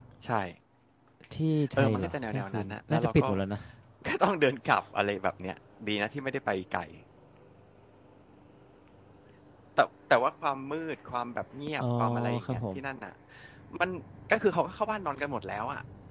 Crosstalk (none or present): present